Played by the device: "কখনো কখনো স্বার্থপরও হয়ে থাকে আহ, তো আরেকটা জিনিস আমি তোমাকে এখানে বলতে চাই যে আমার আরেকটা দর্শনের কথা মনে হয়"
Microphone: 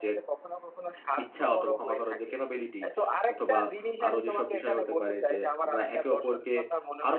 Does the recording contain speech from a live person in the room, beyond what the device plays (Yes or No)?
Yes